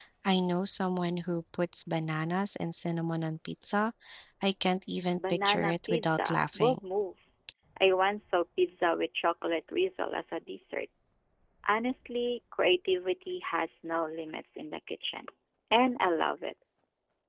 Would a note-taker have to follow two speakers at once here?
Yes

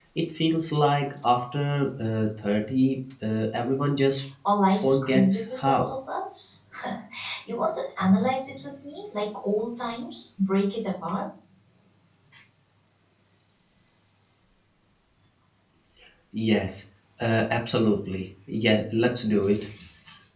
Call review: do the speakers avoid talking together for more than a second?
No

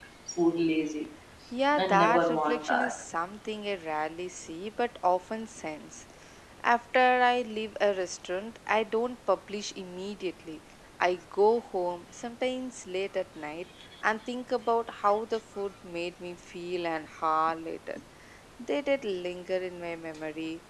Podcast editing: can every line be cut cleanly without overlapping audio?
No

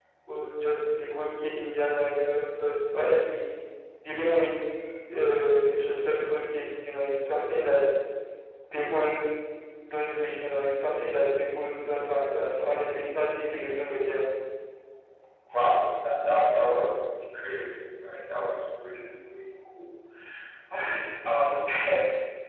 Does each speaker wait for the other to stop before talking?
Yes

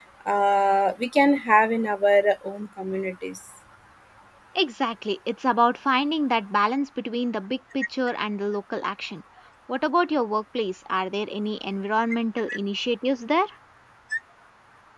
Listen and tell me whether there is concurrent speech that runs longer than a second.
No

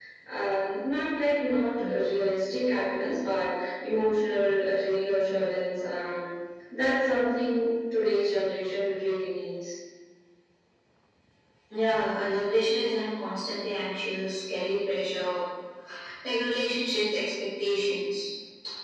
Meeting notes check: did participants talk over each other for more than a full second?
No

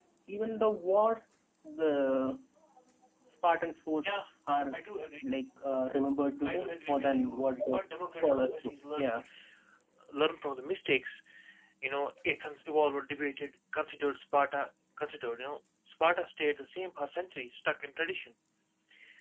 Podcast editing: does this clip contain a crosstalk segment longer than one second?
Yes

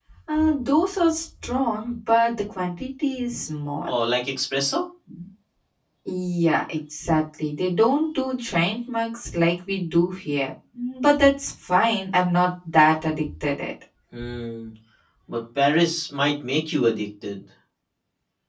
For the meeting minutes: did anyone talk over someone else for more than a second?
No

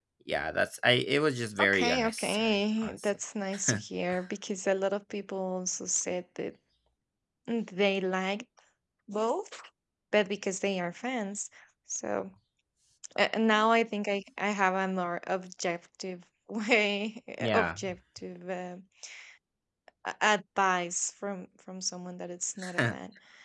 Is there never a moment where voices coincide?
No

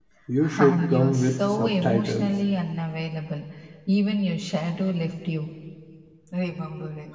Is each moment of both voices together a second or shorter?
No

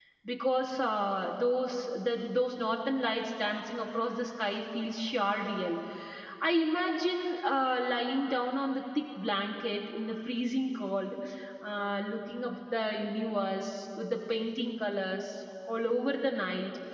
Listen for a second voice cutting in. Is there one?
No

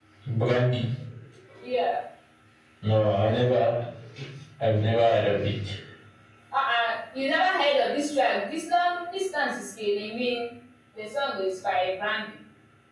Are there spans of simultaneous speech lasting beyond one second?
No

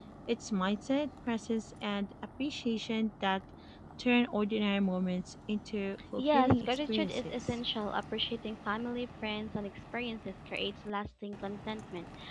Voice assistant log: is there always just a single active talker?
No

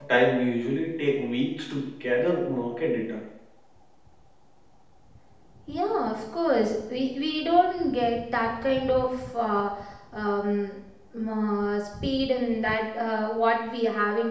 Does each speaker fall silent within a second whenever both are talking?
Yes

